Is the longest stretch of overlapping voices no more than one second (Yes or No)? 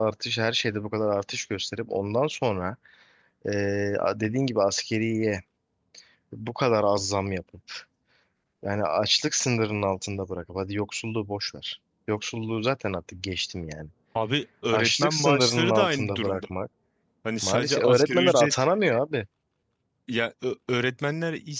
No